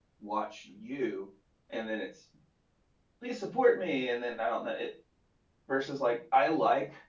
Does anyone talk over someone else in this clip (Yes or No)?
No